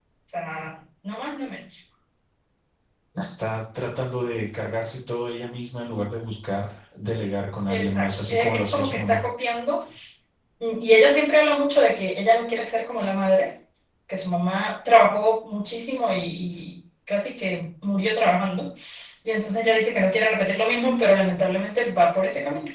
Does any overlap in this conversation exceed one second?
Yes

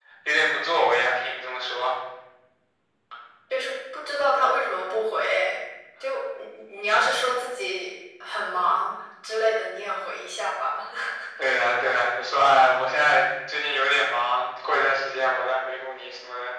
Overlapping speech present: No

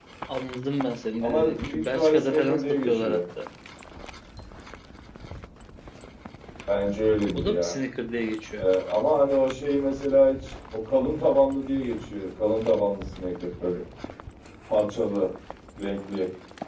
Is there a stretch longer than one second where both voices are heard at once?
Yes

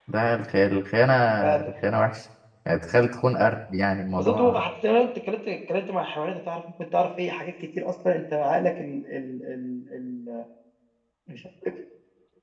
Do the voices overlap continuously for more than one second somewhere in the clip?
No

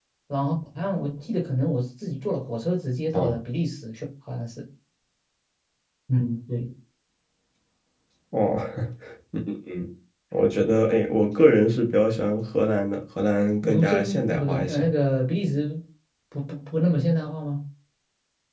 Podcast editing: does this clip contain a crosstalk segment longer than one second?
Yes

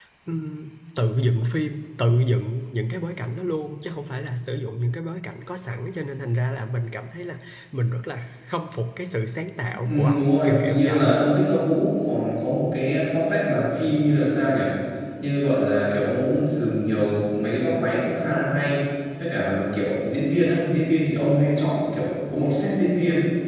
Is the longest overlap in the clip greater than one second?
Yes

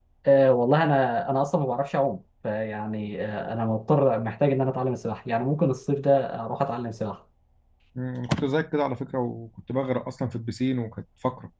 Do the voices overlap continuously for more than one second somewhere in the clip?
No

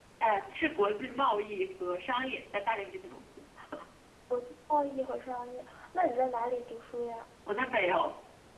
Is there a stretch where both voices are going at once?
No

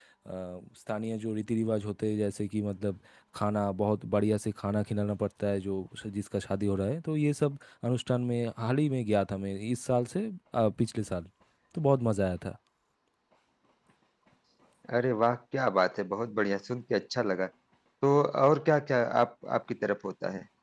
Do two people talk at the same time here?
No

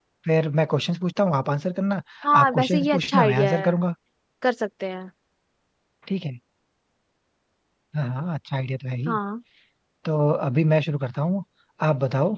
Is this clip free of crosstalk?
No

